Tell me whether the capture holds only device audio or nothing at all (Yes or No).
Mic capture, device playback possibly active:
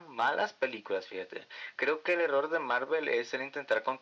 Yes